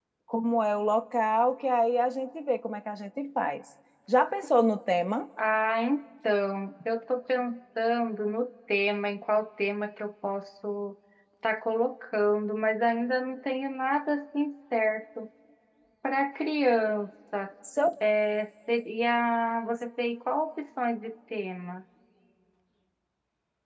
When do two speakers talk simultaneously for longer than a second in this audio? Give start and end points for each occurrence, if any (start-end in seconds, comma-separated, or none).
none